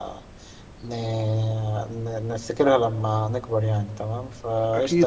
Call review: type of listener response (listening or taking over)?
listening